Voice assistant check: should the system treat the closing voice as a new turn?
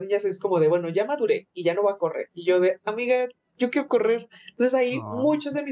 No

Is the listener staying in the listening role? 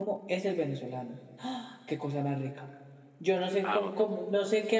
Yes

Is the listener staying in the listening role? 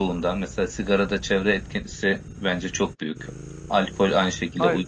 Yes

